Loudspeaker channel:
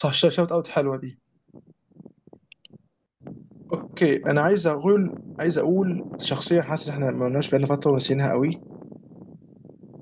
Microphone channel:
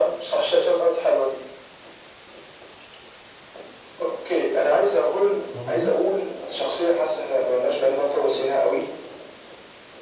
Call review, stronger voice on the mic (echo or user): echo